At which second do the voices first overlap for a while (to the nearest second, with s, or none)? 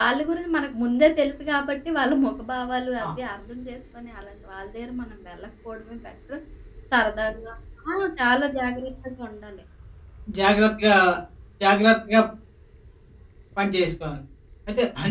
none